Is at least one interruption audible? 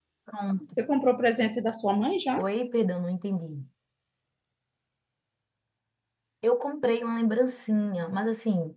No

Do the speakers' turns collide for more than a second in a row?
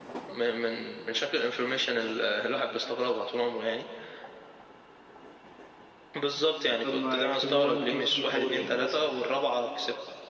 Yes, from 6.8 s

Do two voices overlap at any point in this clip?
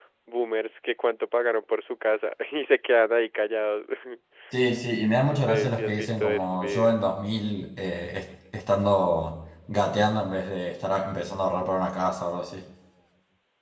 Yes, from 5.2 s

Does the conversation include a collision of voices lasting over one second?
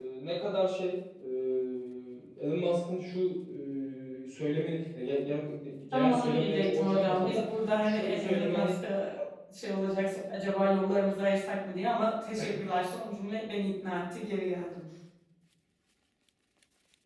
Yes, from 5.9 s

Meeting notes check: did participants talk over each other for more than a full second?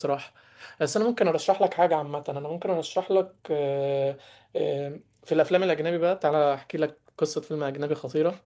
No

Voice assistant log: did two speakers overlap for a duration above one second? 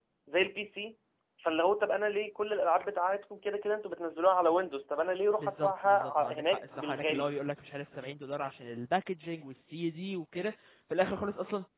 Yes, from 5.4 s

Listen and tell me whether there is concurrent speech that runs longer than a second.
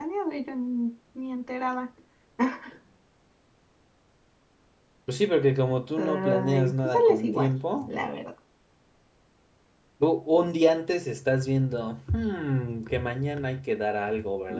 Yes, from 6.0 s

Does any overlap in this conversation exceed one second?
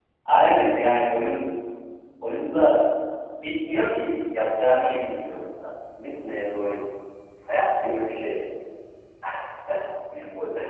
No

